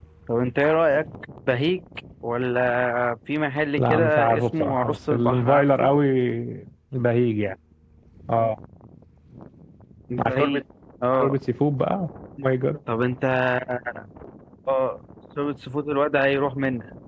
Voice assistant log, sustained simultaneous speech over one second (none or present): present